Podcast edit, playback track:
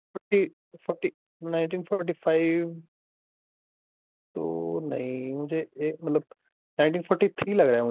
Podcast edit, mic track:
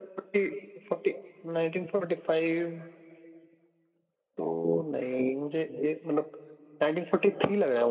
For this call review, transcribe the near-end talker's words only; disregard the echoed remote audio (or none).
none